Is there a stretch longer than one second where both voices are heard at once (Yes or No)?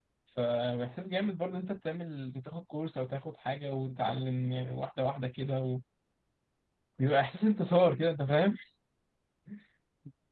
No